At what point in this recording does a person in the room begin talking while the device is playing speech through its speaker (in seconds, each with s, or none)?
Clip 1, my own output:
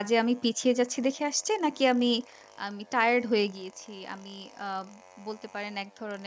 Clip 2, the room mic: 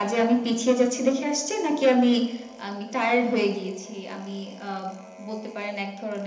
none